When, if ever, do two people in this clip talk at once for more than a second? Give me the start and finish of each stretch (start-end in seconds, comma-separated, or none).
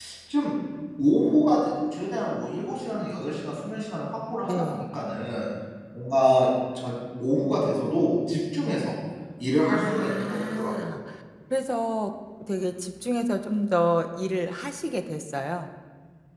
9.7-10.9